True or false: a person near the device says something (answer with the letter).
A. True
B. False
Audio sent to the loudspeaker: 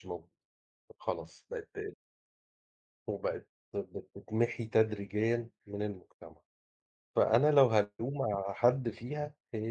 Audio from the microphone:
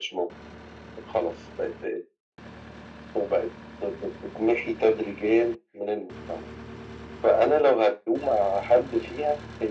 B